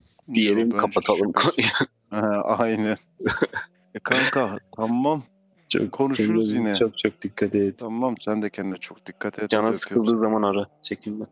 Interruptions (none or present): present